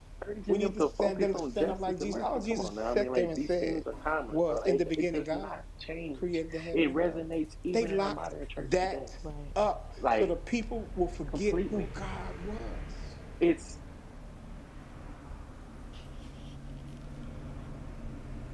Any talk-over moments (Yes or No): Yes